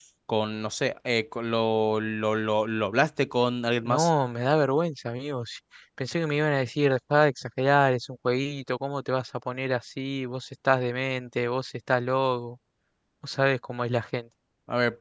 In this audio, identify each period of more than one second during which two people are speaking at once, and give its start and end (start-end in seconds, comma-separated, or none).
none